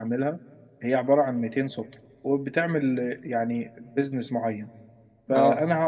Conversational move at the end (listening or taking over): listening